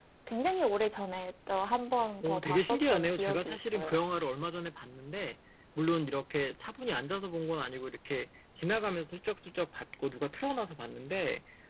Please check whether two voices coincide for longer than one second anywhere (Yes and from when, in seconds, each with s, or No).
Yes, from 2.2 s